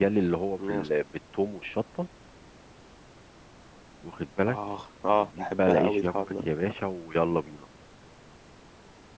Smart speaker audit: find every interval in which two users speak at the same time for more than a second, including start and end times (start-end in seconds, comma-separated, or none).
5.1-6.4